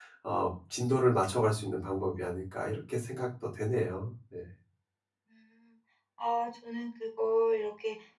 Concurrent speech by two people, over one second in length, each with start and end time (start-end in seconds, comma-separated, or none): none